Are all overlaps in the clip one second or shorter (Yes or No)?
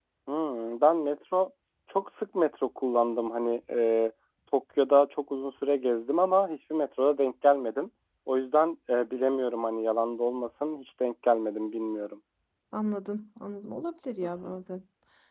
Yes